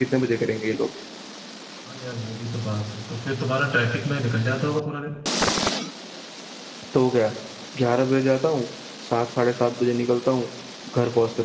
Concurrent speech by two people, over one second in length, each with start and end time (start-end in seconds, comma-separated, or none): none